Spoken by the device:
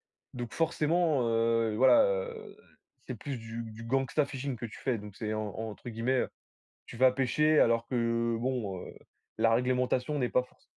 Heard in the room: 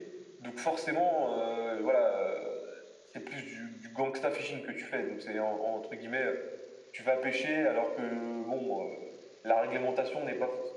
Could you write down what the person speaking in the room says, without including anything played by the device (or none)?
none